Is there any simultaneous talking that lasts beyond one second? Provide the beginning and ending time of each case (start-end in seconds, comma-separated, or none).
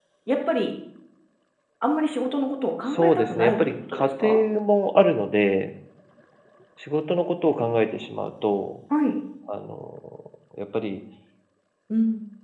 2.9-4.4